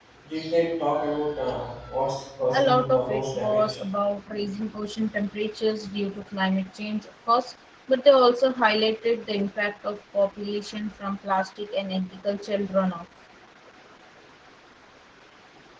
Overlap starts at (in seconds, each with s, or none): 2.5 s